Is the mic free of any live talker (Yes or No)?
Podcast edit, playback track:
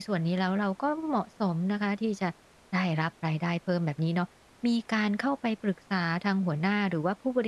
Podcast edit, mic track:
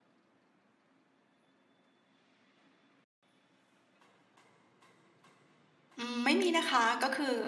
No